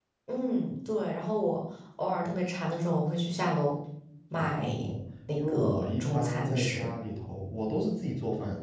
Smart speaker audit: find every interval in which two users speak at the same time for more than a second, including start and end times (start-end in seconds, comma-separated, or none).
5.4-6.9